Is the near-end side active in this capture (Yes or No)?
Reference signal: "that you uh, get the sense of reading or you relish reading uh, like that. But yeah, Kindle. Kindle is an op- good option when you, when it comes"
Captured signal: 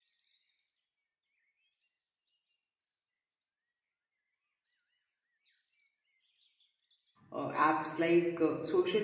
Yes